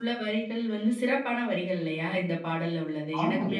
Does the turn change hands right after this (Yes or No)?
Yes